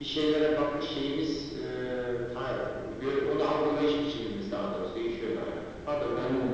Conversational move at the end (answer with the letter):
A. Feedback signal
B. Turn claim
B